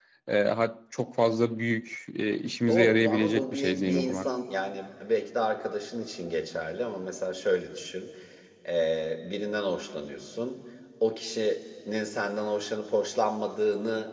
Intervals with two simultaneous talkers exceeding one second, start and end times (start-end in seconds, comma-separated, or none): 2.7-4.3